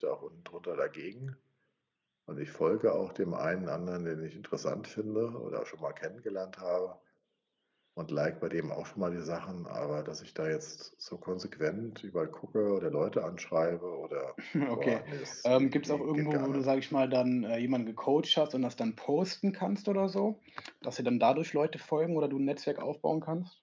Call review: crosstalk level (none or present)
present